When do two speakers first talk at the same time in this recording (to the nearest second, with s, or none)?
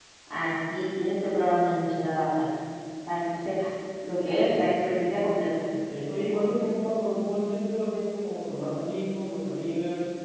none